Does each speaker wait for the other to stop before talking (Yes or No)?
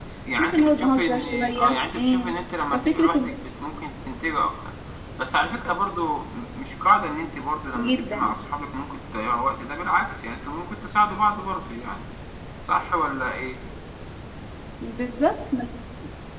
No